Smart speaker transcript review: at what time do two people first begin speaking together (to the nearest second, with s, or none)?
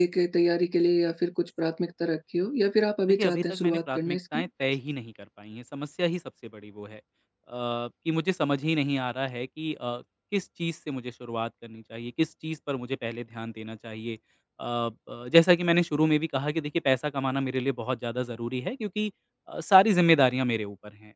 3 s